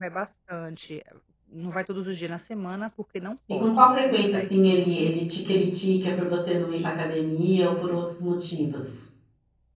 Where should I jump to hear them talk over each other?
3.5 s

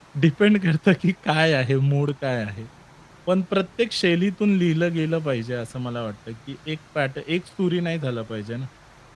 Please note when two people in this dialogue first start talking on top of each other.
none

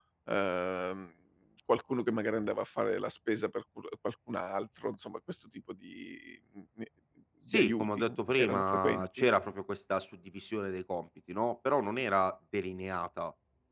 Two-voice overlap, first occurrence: 7.5 s

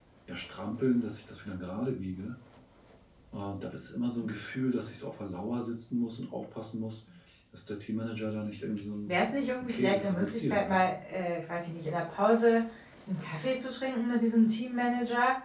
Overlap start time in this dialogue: 9.6 s

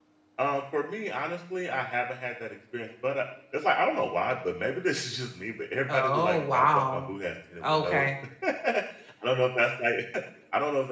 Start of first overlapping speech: 5.9 s

